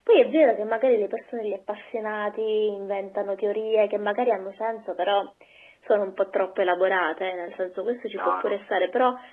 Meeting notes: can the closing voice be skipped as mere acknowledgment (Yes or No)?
Yes